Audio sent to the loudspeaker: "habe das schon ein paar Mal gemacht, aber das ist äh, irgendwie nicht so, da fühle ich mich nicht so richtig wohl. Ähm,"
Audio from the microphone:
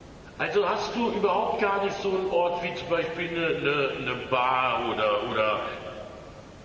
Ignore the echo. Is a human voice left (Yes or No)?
Yes